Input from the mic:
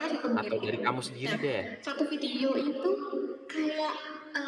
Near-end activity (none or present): present